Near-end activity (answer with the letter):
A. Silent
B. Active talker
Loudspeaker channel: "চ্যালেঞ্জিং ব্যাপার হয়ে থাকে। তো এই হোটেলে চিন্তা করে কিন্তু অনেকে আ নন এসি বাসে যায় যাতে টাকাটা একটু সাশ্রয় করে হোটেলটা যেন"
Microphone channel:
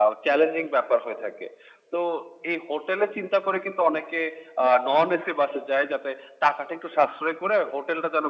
A